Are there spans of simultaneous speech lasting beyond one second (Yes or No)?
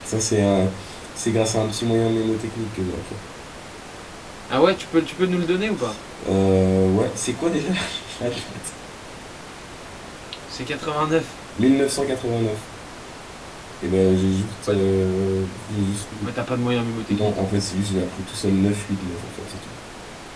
No